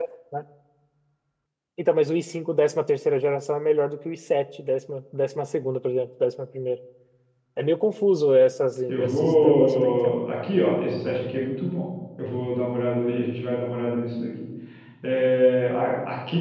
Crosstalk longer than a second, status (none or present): present